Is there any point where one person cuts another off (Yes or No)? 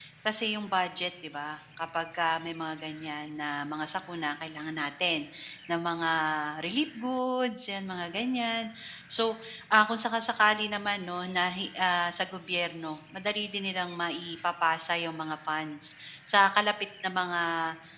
No